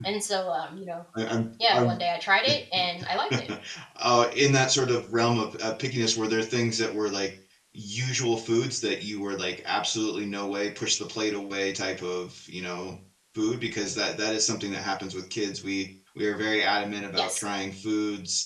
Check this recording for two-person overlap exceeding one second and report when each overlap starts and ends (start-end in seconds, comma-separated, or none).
none